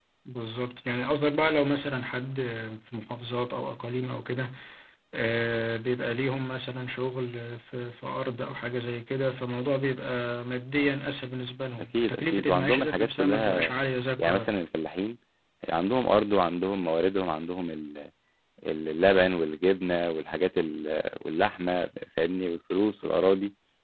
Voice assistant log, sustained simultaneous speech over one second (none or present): present